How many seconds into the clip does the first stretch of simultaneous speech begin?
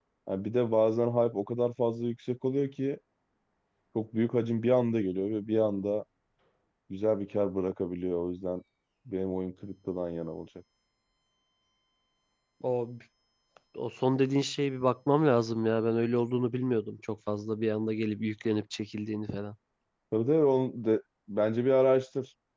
none

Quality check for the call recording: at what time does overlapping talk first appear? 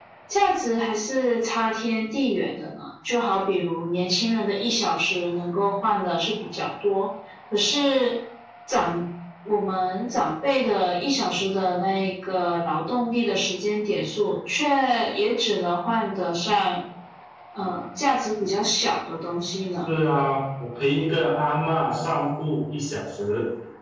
none

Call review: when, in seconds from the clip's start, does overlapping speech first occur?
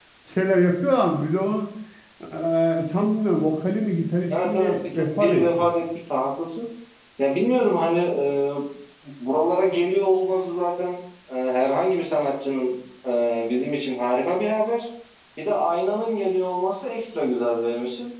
4.3 s

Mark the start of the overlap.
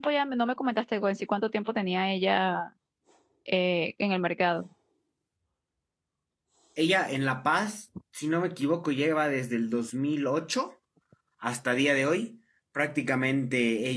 none

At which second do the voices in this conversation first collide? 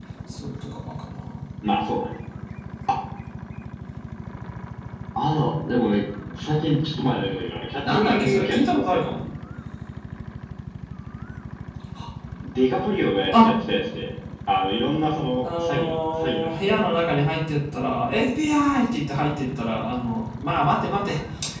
7.9 s

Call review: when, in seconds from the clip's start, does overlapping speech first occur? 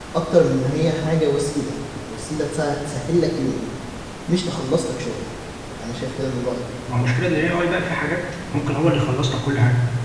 none

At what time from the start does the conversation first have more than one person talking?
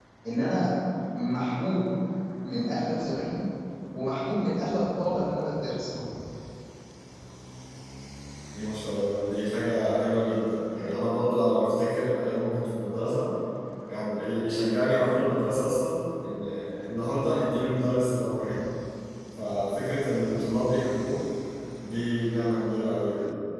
none

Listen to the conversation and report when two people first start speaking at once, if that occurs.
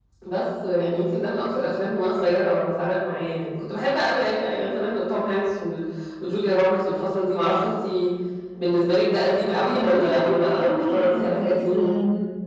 9.6 s

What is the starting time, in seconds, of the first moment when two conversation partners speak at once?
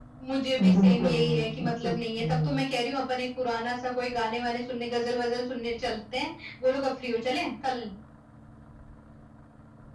0.6 s

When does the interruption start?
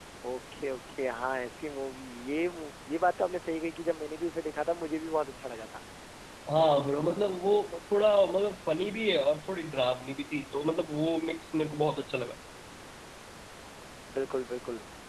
none

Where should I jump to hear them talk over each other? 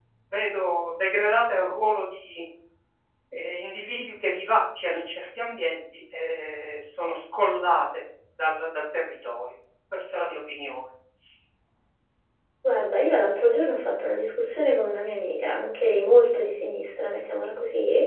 none

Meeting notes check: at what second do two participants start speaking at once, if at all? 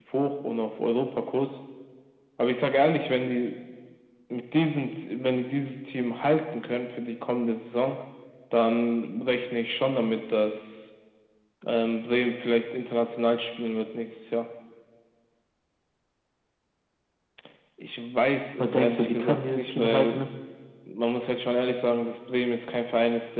18.6 s

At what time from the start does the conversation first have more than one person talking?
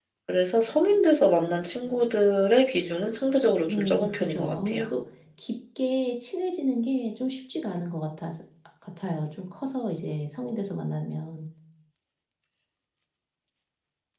3.7 s

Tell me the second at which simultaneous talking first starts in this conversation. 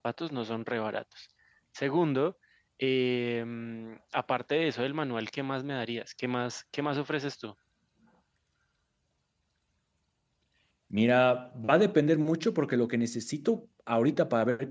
none

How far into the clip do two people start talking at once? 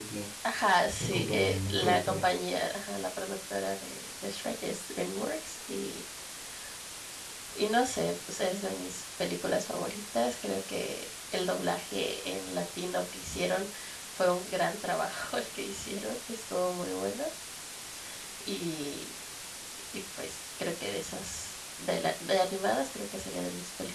1.0 s

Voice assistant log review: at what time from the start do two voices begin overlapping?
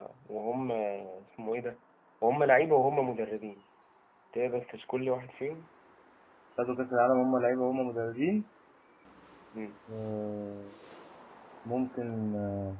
none

